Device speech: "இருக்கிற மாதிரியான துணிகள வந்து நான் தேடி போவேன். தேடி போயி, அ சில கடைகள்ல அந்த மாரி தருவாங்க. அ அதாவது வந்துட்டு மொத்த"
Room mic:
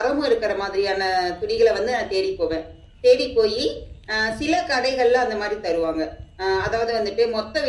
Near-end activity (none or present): none